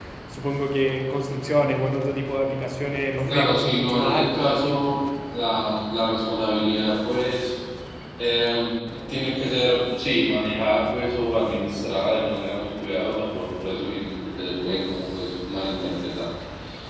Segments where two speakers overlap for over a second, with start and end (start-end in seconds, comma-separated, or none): 3.3-4.8